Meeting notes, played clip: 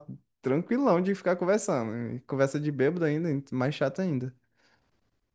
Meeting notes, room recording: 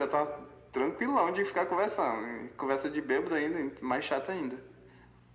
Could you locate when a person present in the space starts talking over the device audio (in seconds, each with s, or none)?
none